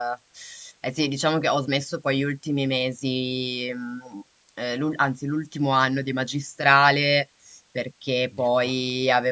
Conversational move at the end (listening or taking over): listening